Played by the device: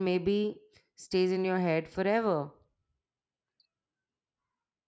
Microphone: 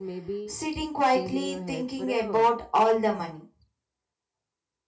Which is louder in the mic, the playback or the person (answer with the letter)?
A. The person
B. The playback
A